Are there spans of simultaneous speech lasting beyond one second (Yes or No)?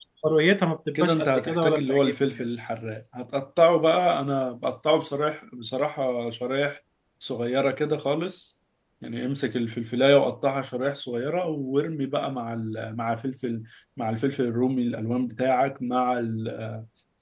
Yes